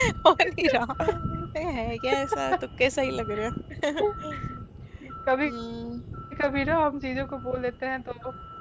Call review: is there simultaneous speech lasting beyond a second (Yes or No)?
No